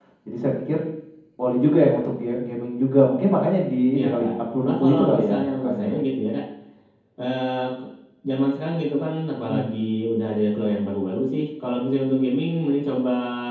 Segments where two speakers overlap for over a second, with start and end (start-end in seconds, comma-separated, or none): 3.9-5.9